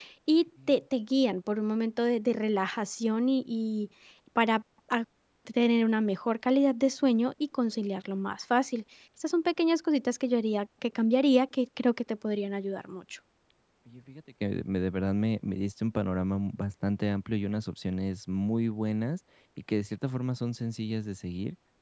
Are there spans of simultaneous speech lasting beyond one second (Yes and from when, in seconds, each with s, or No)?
No